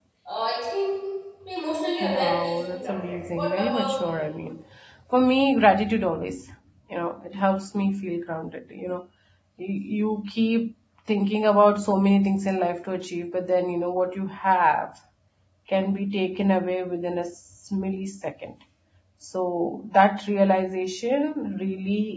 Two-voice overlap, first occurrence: 2.0 s

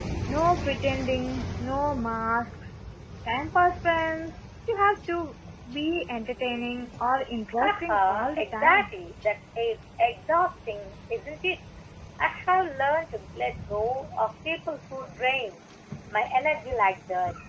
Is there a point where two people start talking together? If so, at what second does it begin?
7.6 s

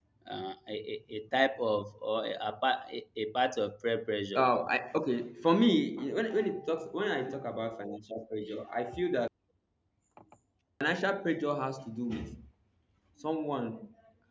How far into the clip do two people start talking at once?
none

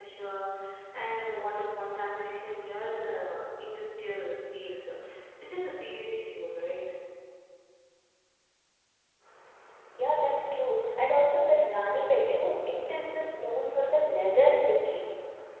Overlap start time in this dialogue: none

